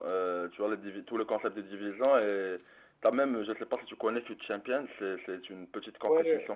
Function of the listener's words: taking over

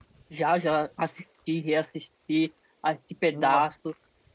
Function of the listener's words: listening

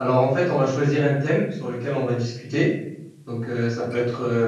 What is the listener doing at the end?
listening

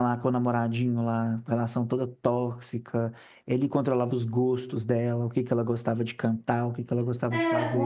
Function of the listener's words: taking over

